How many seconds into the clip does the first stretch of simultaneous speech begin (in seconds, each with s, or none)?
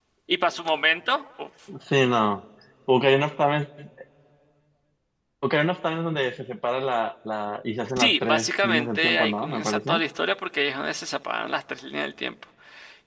8.0 s